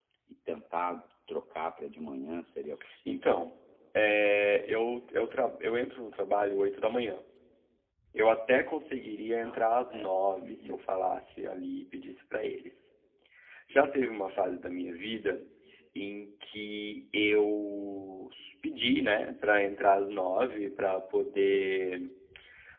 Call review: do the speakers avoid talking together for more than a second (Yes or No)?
No